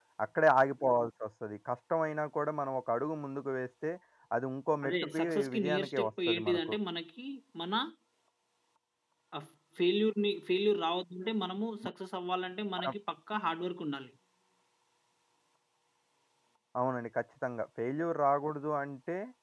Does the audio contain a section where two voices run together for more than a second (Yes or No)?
Yes